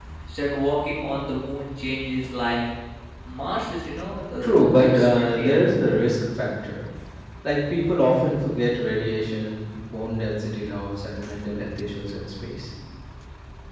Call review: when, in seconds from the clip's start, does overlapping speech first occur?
4 s

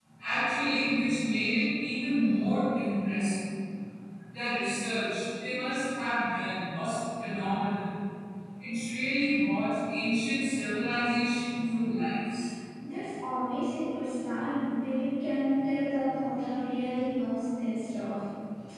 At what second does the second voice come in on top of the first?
none

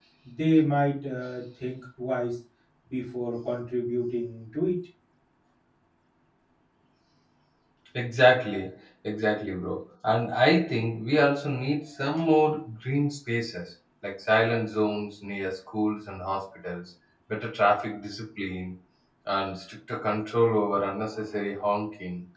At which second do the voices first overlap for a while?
none

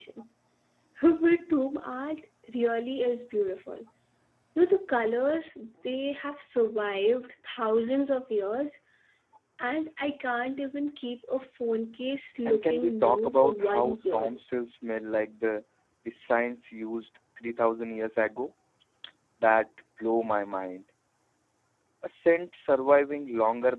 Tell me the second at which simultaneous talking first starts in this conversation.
12 s

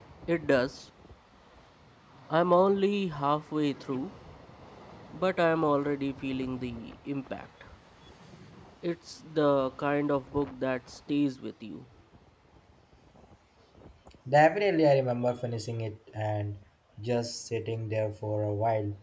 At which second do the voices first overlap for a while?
none

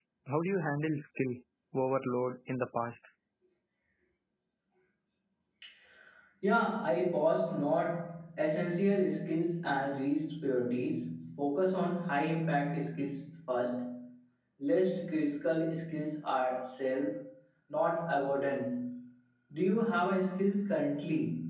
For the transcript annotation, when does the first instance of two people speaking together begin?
none

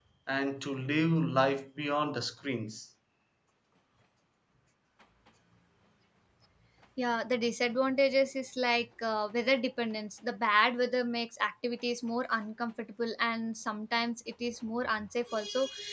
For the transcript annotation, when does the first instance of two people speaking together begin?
none

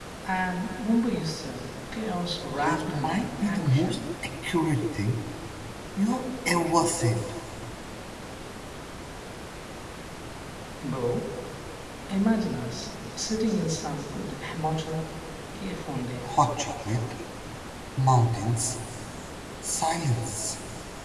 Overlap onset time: 3 s

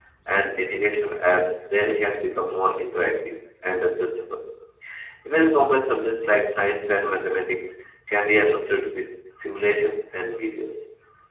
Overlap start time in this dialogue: none

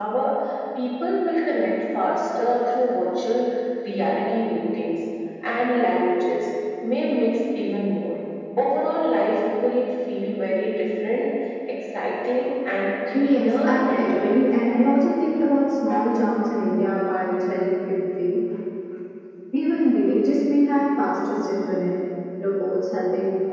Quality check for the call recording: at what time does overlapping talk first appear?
13 s

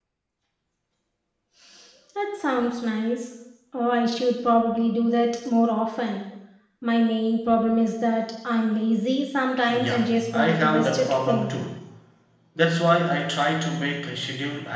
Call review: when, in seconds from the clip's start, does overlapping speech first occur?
10 s

